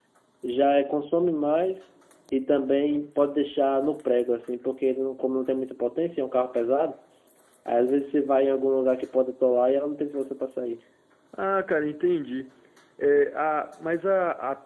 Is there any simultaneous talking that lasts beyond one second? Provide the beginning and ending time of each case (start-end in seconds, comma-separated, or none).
none